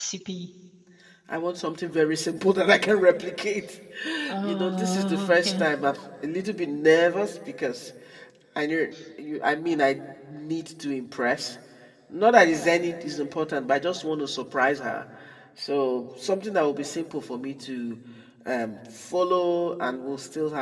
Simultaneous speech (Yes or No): Yes